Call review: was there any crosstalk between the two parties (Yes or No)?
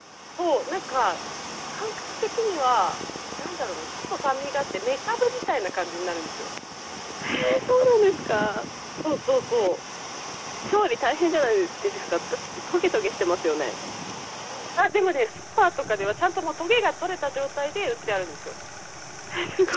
No